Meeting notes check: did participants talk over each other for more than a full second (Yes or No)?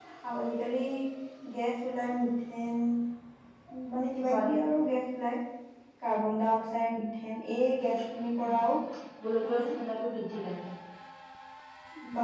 No